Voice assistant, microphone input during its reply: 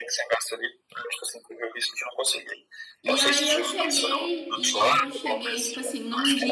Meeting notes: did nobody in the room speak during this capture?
No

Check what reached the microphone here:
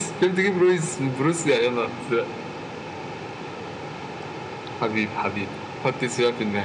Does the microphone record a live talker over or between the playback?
No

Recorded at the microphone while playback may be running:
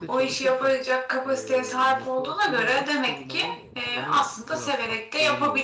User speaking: Yes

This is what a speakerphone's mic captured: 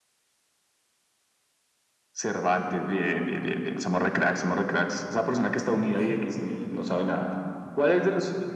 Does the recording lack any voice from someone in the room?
No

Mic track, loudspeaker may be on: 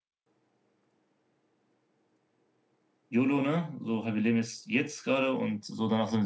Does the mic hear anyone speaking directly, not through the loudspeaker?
Yes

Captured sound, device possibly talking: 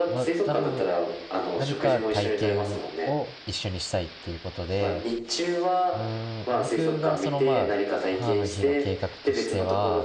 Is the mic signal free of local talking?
No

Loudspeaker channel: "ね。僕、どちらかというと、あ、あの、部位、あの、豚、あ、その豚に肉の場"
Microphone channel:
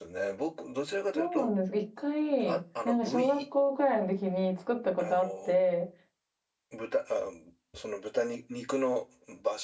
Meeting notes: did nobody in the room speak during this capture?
No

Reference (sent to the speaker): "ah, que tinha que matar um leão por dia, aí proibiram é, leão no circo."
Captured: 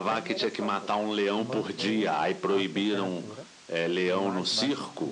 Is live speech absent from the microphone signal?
No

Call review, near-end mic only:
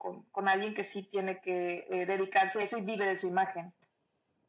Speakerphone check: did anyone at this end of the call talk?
No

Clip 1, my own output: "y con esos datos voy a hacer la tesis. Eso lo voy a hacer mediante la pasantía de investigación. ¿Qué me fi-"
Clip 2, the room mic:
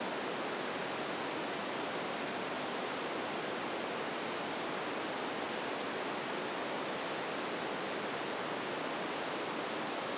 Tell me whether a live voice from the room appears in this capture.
No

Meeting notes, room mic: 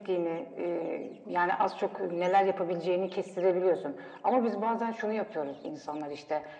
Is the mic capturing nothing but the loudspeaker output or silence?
Yes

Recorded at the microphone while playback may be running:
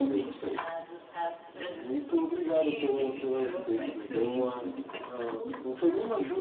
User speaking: Yes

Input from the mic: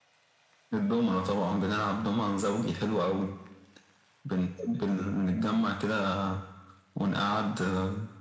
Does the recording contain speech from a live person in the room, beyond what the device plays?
No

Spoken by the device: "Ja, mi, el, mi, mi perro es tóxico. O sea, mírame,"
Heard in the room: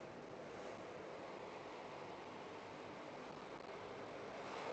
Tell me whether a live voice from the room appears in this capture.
No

